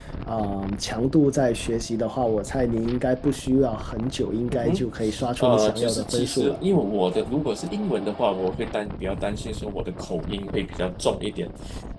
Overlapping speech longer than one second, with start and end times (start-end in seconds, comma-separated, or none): 5.4-6.6